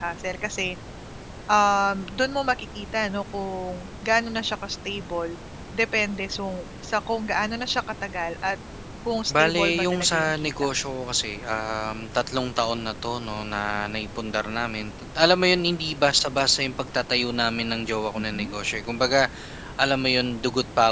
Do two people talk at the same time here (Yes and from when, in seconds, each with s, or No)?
Yes, from 9.3 s